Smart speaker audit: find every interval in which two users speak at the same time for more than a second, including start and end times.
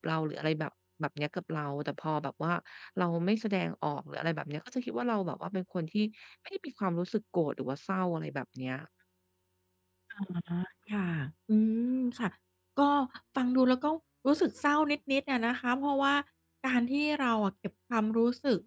none

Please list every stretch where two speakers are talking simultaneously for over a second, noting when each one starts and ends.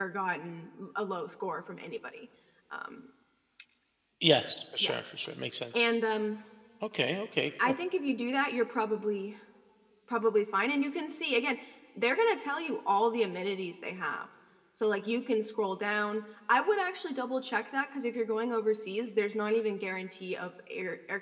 none

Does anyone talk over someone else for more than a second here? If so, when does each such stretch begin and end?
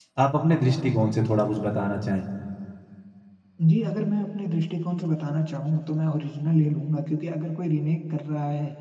none

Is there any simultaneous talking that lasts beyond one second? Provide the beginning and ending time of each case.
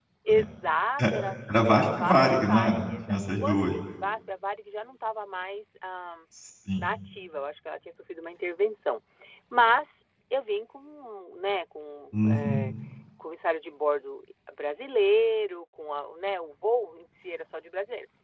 1.7-3.7

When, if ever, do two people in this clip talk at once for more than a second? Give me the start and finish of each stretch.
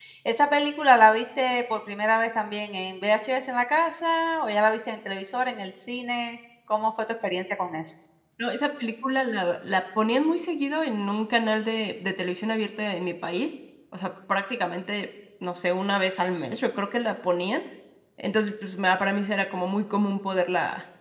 none

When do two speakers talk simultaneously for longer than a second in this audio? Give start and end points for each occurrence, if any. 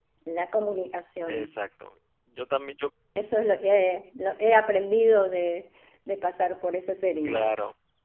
none

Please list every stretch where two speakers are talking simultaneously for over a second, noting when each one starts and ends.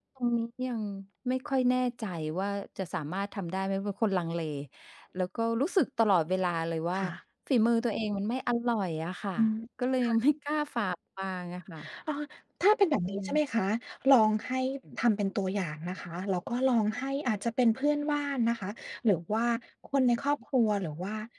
none

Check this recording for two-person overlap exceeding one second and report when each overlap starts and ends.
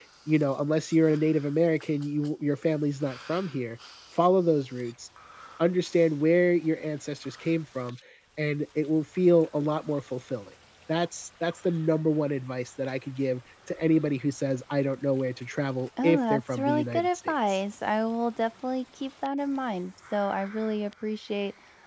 16.0-17.6

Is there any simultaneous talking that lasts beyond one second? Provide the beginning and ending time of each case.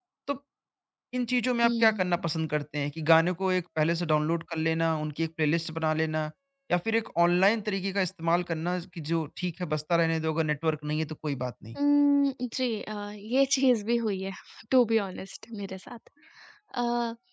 none

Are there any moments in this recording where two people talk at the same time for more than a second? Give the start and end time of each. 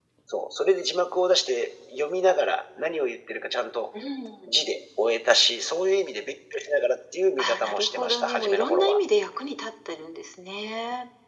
7.4-9.0

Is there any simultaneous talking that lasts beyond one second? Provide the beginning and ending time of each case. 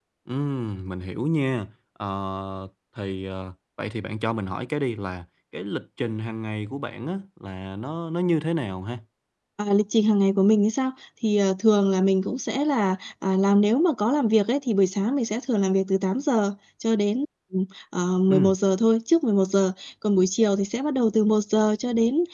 none

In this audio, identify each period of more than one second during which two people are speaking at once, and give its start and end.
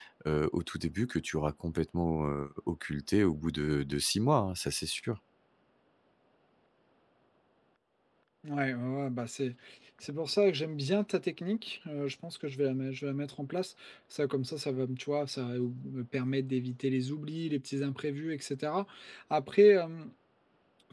none

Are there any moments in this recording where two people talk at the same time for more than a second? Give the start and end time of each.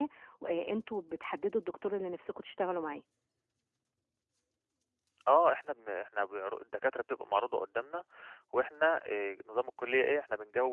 none

